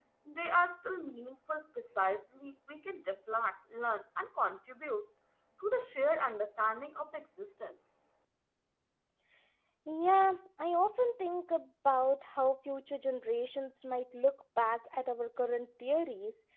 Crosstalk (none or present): none